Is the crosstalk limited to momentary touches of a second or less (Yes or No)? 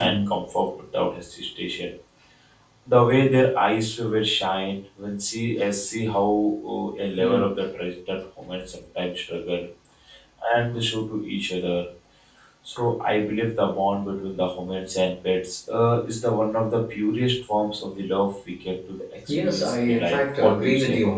No